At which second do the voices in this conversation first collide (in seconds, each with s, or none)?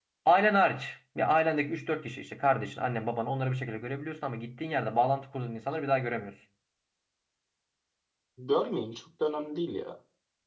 none